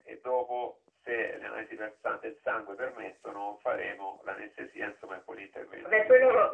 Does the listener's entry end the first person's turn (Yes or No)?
Yes